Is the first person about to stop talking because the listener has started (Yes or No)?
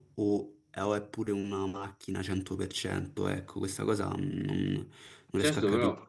Yes